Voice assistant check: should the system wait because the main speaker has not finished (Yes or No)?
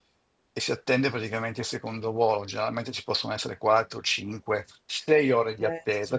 Yes